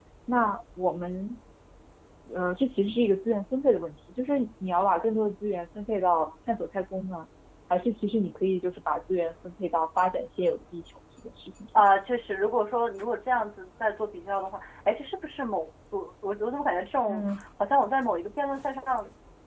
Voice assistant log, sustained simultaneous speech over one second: none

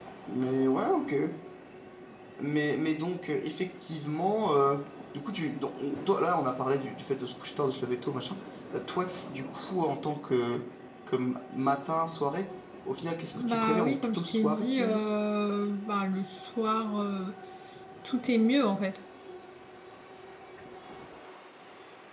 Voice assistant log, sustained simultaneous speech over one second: present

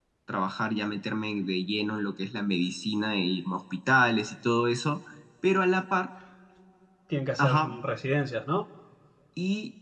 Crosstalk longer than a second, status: none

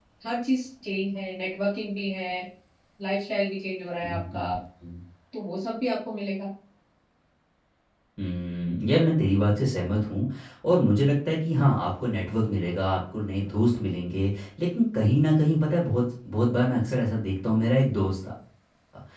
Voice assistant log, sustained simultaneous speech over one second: none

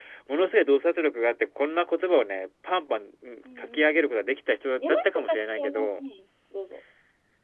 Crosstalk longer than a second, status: present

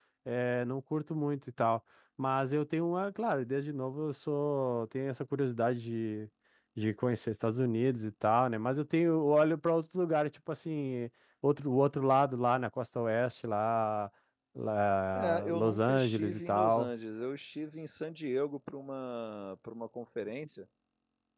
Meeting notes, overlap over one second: present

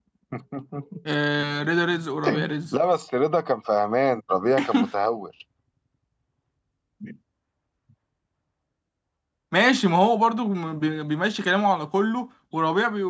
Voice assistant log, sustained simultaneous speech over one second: none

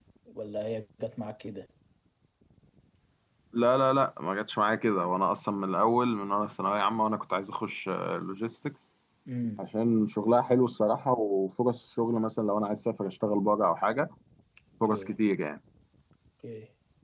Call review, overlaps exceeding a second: none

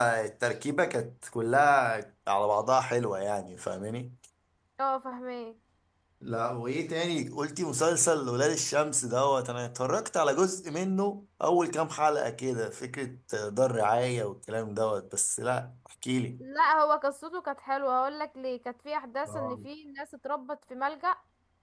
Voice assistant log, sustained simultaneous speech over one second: none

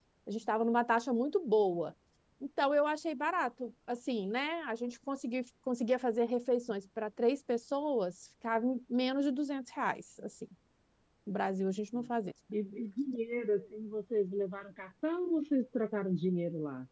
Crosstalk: none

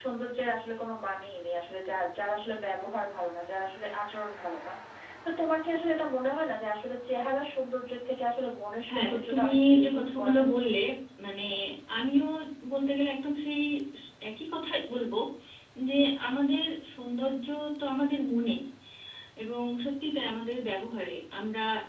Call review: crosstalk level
present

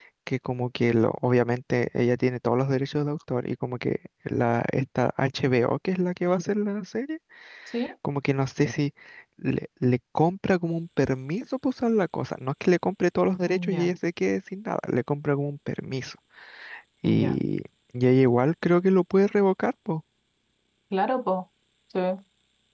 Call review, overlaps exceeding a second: none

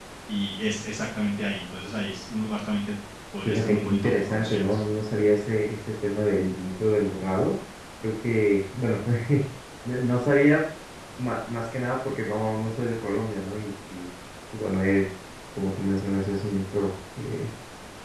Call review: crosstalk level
present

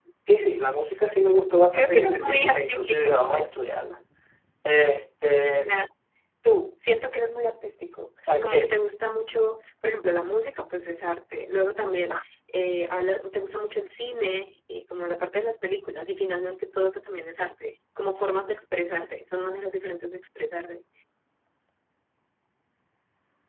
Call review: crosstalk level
present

